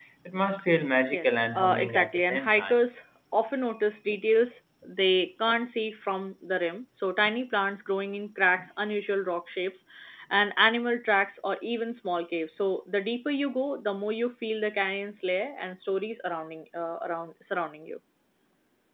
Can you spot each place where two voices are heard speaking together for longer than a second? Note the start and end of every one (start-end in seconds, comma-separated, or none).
1.1-2.8